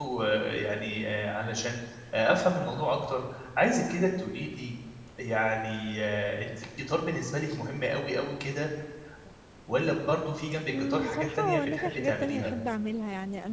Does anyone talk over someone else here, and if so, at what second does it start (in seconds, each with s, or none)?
10.7 s